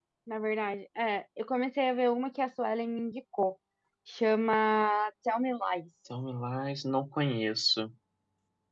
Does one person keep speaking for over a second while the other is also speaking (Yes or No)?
No